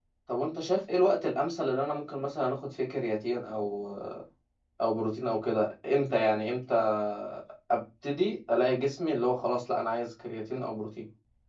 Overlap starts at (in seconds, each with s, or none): none